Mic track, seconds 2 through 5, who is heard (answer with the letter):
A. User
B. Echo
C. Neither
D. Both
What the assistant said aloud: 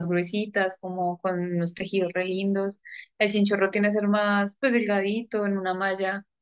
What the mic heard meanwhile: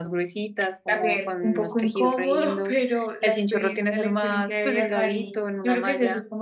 D